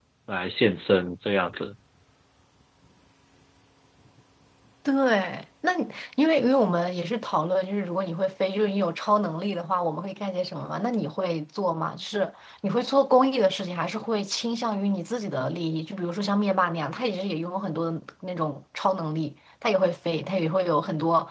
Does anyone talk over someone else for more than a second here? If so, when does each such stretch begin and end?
none

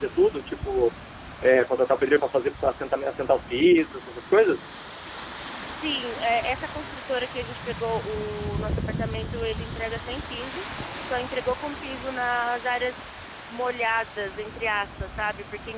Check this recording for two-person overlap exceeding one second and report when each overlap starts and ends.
none

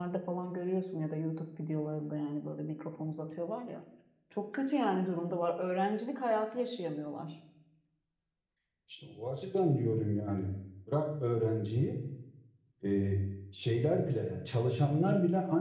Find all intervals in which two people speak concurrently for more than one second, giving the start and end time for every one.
none

